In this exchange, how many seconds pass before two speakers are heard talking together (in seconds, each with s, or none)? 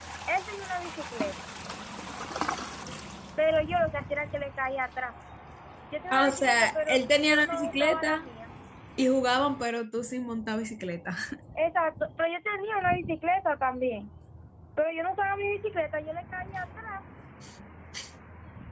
6.1 s